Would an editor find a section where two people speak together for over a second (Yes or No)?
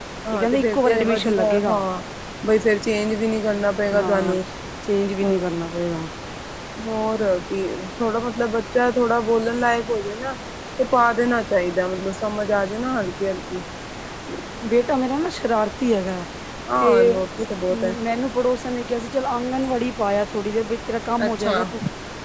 Yes